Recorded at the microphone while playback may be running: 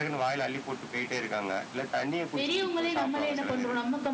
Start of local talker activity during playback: 2.4 s

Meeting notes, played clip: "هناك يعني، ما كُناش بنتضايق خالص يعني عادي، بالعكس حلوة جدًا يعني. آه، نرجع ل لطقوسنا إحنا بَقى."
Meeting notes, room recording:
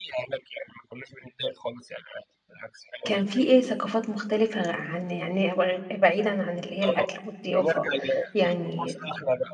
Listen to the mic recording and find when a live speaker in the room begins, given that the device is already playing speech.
3.0 s

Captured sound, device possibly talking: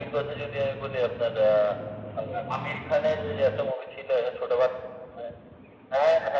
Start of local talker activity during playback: none

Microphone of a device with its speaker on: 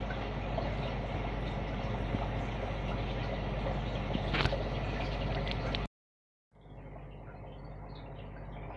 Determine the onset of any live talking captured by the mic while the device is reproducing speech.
none

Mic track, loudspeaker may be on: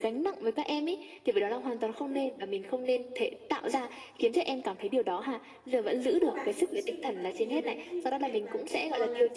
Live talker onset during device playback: 6.0 s

